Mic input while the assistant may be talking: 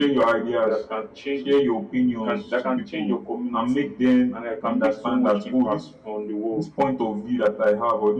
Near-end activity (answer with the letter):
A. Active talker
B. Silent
A